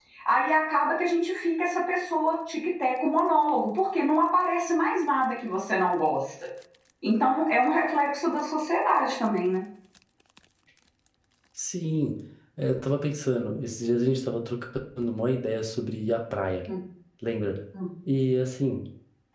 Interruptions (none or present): none